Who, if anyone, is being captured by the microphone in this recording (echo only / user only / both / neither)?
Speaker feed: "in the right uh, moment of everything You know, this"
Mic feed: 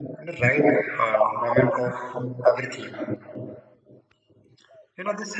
echo only